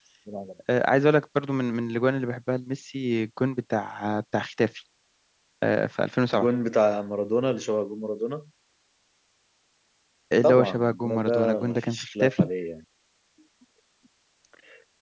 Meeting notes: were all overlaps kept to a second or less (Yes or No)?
No